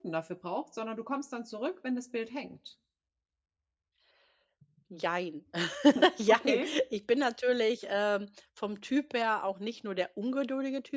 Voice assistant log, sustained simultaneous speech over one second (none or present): none